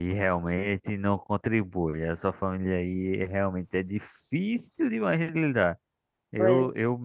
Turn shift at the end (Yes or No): No